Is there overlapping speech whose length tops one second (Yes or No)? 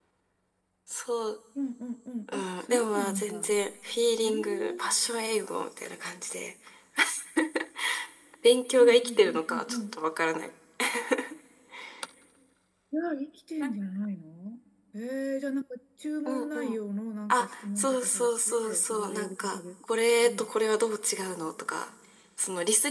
Yes